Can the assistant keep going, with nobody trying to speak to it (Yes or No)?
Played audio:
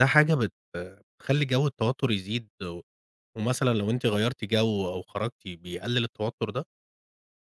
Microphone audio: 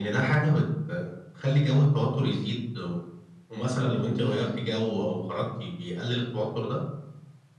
Yes